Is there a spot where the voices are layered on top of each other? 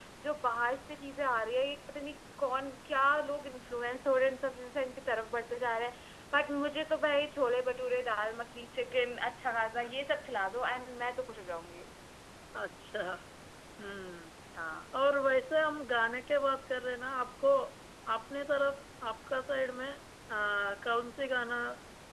No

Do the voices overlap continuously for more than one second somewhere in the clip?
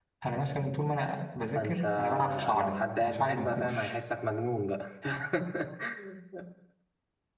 Yes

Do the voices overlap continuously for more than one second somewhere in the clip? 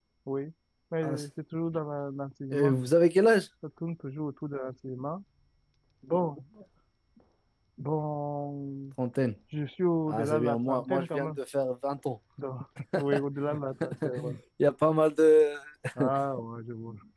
Yes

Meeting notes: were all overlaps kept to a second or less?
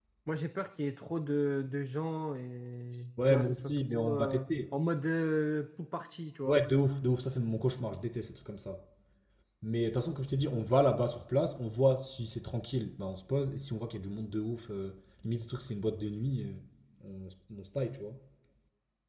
No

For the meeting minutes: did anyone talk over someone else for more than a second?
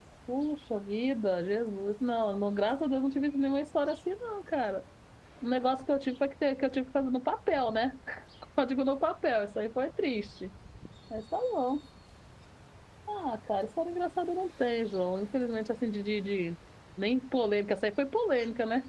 No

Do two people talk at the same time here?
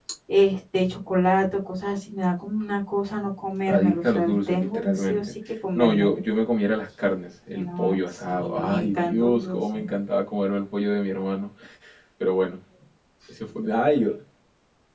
Yes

